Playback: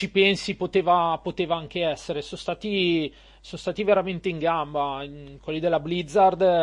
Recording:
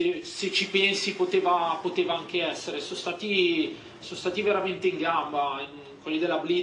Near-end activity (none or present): none